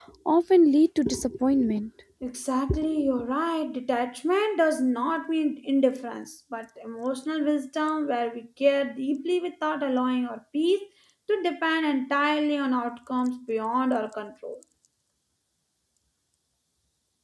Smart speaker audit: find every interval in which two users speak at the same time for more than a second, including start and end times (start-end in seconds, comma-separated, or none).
none